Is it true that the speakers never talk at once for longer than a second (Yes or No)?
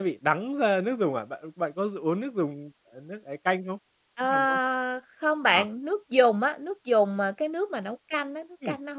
Yes